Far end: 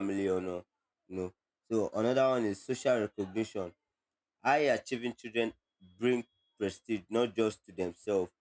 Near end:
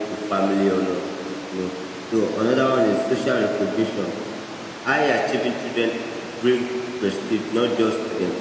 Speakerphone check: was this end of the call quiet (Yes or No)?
Yes